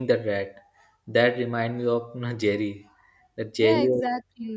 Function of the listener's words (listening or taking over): taking over